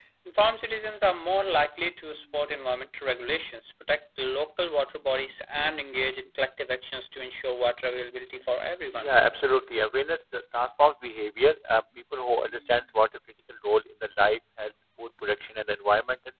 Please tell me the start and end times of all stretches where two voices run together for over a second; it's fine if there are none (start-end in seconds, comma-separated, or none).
none